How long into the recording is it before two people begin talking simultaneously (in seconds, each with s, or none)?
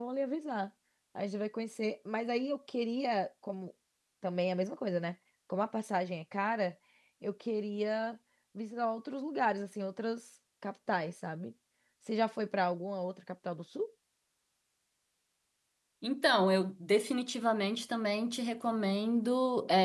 none